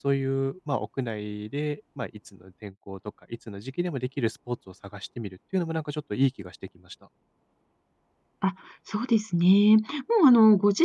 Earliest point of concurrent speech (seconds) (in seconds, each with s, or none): none